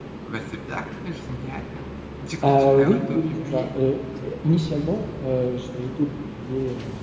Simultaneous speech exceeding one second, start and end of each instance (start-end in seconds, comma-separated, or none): 2.4-3.7